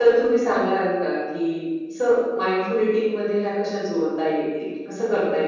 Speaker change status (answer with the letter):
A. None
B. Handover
B